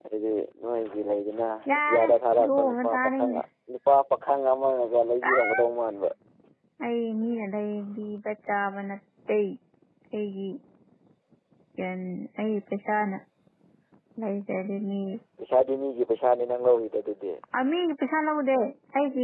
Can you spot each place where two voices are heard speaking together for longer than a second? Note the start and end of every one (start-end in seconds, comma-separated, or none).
1.9-3.3